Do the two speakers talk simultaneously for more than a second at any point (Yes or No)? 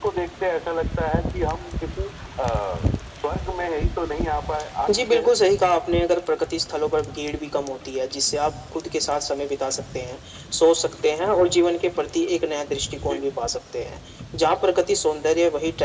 No